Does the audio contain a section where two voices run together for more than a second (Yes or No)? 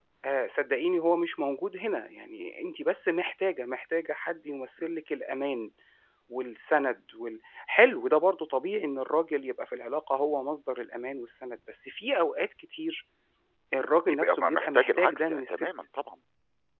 Yes